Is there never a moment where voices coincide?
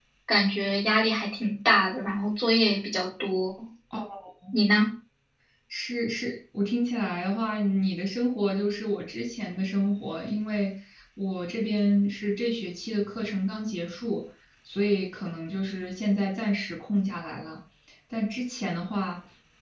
Yes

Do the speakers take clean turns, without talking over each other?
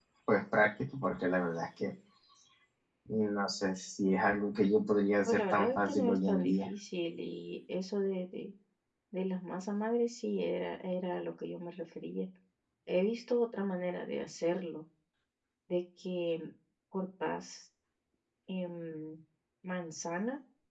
No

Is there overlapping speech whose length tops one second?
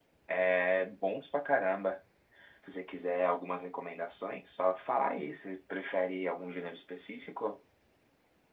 No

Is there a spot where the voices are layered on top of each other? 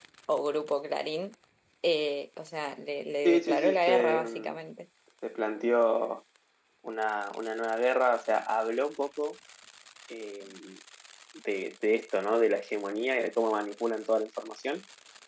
Yes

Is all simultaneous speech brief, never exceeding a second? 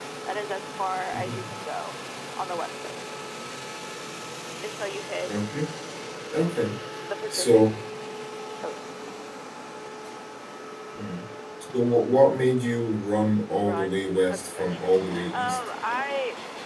No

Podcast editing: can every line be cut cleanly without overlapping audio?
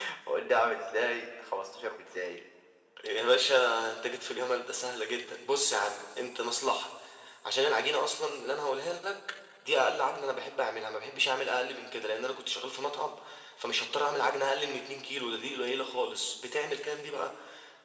Yes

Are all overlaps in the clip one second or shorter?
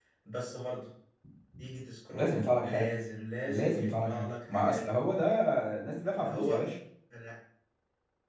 No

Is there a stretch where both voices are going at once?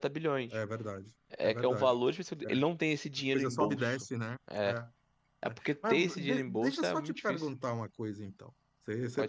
Yes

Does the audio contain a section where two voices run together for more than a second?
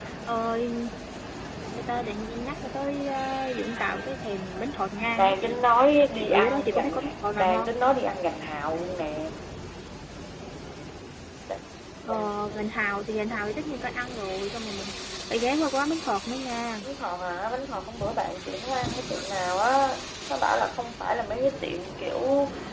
Yes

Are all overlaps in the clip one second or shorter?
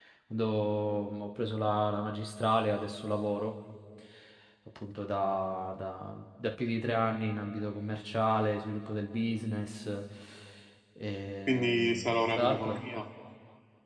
No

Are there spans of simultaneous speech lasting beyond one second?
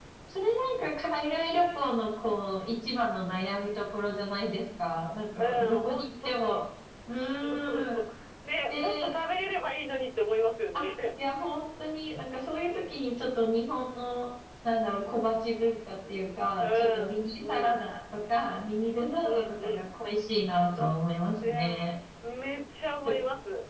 Yes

